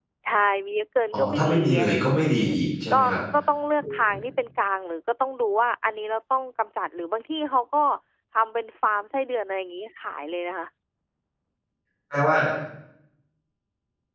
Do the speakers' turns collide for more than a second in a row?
Yes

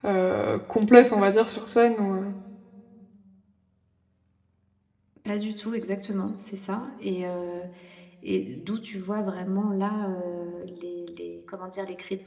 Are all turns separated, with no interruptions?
Yes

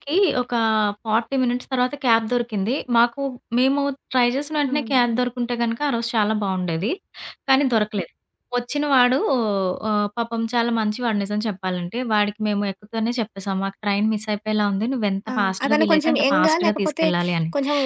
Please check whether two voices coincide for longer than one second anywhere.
Yes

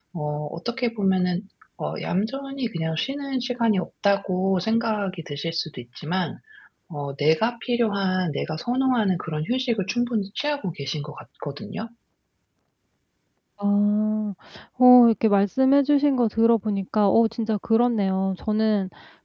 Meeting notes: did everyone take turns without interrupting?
Yes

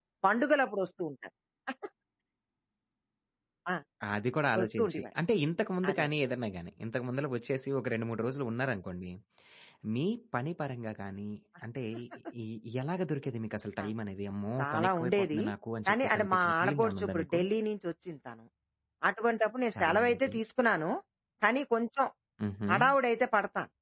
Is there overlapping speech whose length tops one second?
Yes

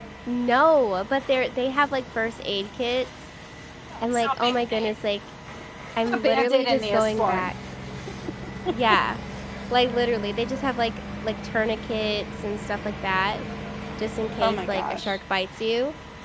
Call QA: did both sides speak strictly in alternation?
No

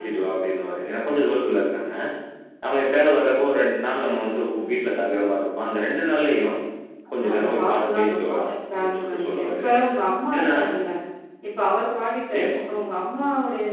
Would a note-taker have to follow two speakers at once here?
Yes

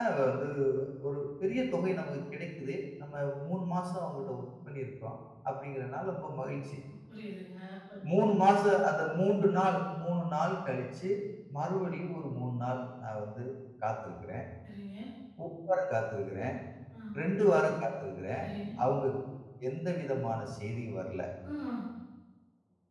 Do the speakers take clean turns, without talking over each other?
Yes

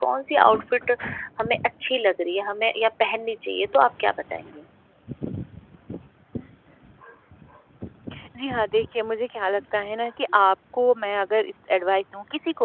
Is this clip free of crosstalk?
Yes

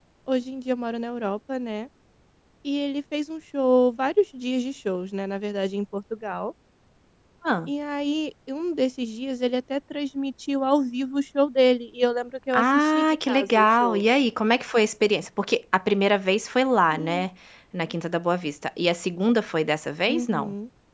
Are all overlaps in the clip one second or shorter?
No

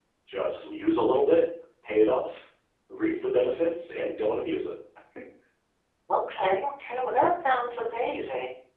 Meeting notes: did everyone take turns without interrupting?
Yes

